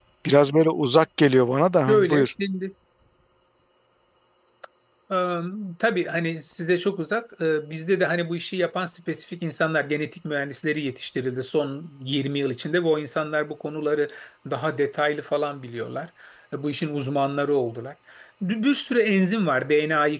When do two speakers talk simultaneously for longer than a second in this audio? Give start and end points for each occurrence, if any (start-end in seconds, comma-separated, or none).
none